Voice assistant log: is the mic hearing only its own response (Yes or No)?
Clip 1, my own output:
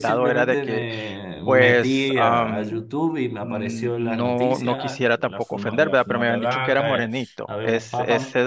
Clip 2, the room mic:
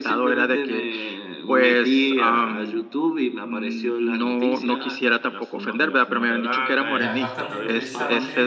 No